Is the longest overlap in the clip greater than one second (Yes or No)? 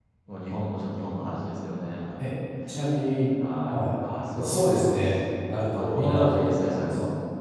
Yes